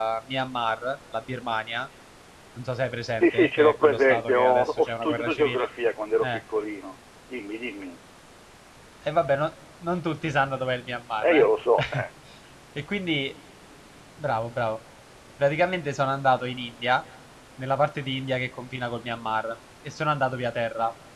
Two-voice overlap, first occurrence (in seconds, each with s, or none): 3.1 s